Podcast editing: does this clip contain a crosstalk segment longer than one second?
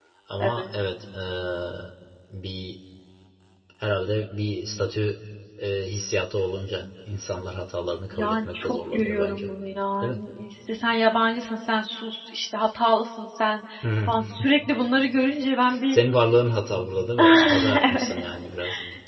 Yes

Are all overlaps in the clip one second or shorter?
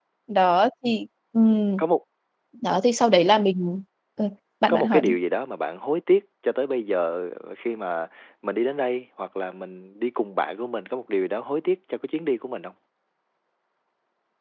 Yes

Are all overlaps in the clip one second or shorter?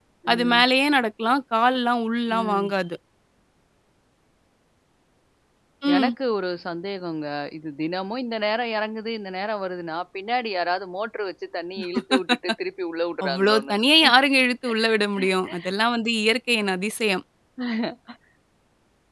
Yes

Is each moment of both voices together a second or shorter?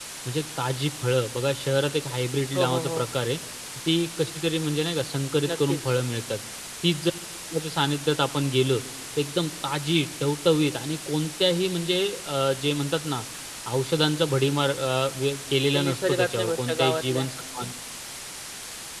No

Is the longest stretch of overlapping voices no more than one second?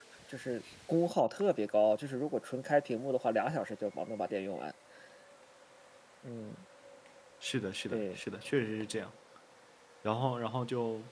Yes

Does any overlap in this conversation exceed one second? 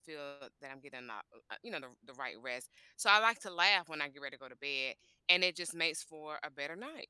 No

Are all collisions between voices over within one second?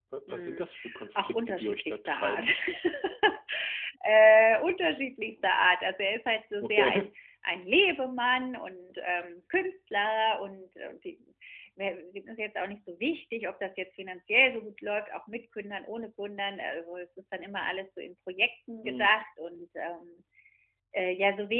No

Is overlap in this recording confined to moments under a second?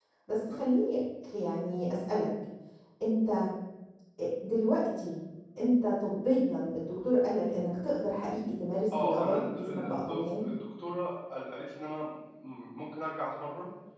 No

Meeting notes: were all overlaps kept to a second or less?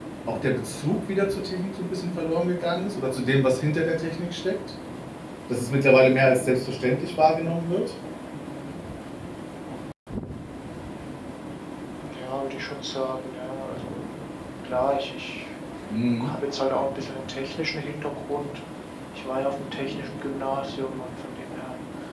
Yes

